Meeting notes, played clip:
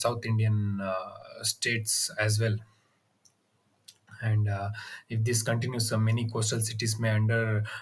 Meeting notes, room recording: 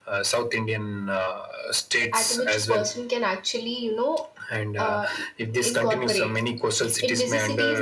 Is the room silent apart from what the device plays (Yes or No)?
No